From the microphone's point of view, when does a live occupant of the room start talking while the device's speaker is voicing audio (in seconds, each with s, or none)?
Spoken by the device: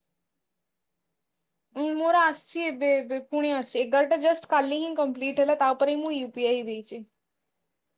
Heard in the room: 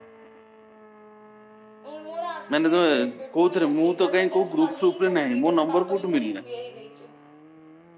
2.5 s